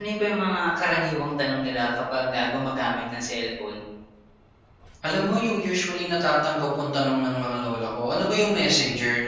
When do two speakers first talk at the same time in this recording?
none

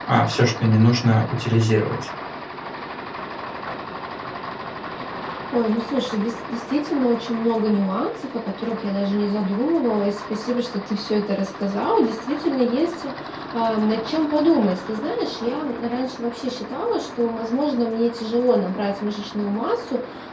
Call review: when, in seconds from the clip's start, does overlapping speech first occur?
none

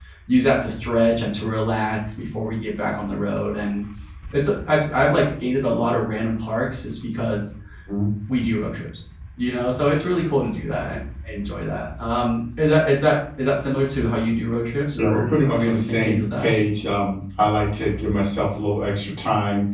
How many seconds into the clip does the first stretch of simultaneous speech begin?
14.9 s

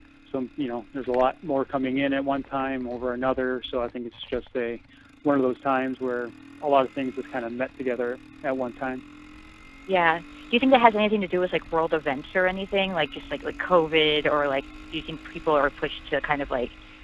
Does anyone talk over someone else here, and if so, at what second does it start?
none

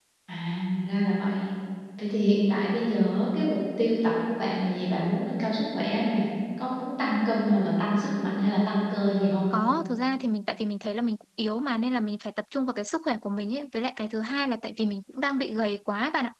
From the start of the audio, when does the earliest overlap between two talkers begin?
none

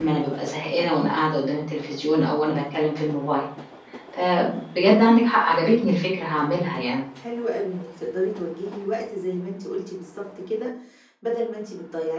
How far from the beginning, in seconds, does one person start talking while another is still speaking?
none

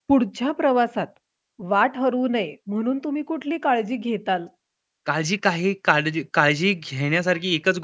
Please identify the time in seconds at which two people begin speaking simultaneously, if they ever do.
none

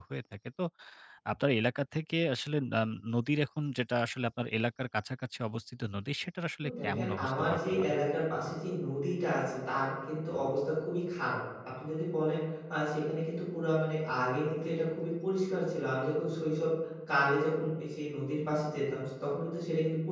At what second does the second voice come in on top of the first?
6.6 s

